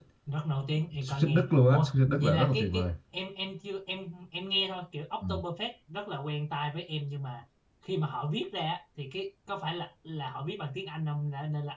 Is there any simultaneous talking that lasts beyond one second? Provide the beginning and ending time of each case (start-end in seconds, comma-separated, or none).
1.0-2.9